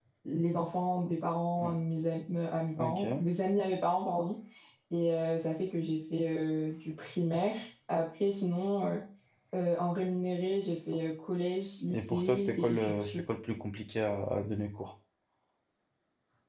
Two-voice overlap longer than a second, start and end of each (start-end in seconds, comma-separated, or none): 11.9-13.2